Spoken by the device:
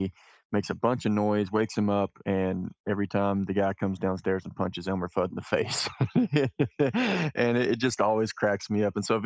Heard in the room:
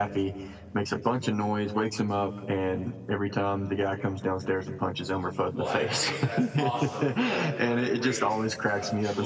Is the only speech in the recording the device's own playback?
No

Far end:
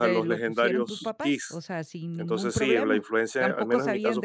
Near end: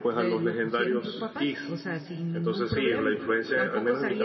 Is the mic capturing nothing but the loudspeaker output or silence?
Yes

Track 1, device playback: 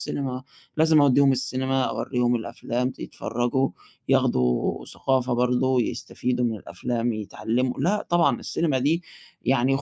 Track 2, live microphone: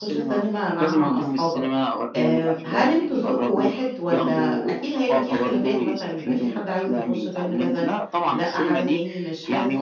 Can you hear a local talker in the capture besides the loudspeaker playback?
Yes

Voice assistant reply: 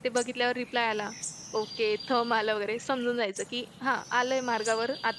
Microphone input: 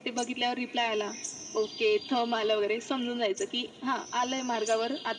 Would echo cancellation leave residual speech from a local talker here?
No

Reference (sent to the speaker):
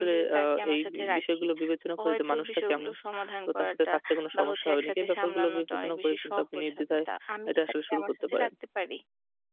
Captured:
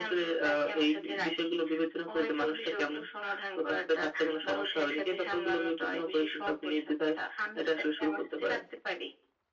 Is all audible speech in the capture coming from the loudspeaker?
Yes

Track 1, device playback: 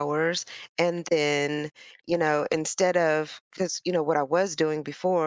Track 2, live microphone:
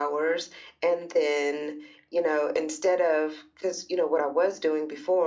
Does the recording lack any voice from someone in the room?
Yes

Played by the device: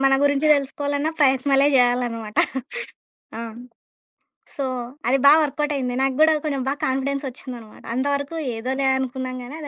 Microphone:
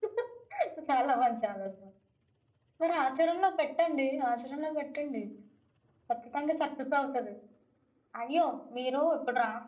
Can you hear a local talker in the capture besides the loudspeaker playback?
Yes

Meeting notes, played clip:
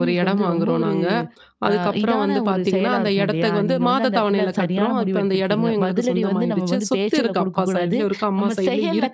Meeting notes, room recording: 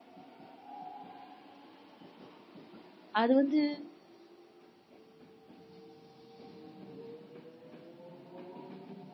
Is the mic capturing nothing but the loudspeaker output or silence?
No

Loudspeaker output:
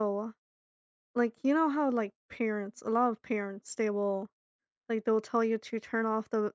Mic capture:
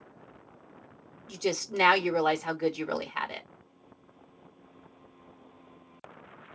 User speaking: Yes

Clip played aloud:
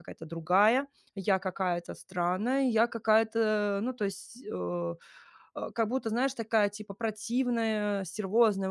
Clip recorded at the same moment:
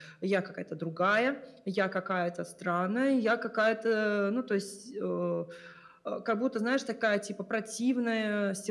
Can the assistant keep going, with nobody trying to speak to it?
Yes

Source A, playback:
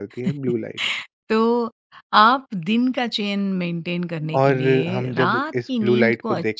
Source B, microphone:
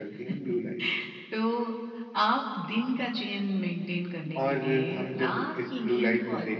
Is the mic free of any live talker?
Yes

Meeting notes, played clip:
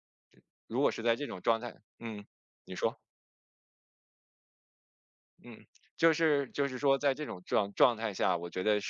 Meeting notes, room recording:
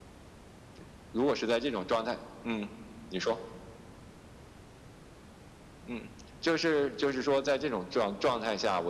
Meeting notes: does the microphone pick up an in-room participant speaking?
No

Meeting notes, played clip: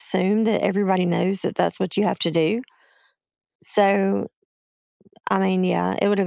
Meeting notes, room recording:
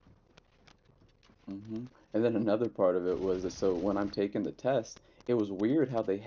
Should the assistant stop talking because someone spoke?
Yes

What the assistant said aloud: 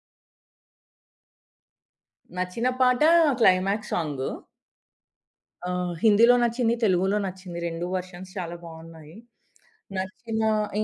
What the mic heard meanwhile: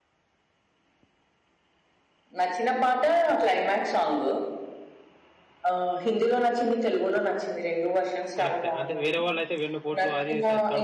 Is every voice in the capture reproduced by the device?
No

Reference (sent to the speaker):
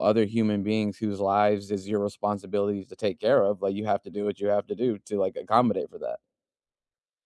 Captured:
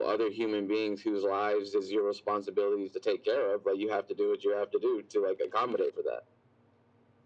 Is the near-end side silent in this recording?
Yes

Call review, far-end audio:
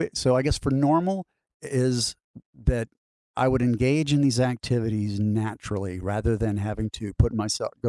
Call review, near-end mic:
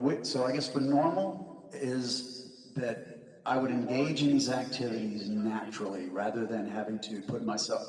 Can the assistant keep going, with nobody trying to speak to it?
No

